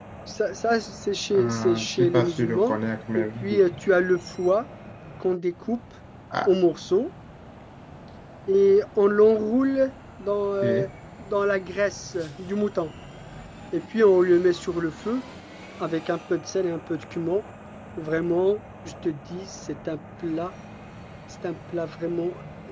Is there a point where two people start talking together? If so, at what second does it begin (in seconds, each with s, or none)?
1.3 s